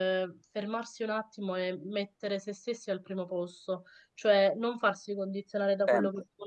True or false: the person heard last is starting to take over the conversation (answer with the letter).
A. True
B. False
B